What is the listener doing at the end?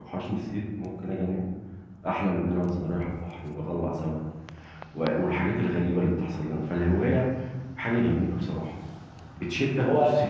listening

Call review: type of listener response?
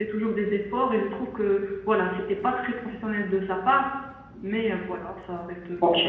taking over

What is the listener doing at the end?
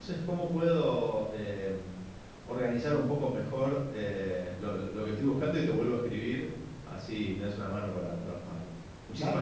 taking over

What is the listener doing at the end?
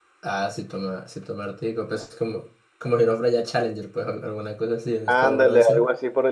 taking over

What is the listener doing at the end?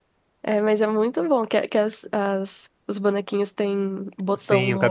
taking over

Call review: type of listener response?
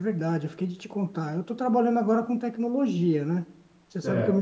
listening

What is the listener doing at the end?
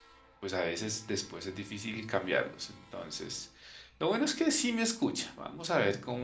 listening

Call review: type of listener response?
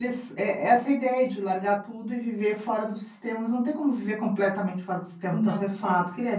listening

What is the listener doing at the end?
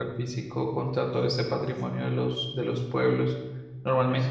listening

